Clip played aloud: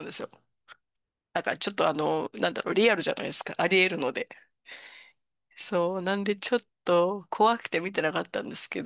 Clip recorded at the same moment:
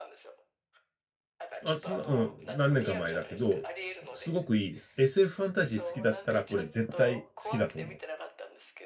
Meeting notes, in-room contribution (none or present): present